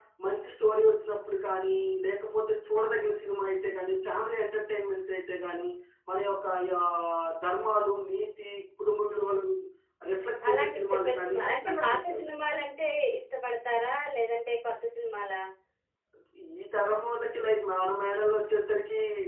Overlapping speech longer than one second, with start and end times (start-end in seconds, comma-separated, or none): 10.5-12.4